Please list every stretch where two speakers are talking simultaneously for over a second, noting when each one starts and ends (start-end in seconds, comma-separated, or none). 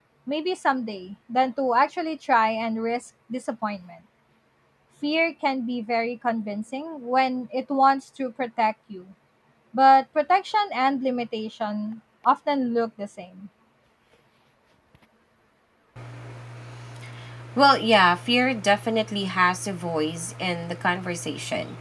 none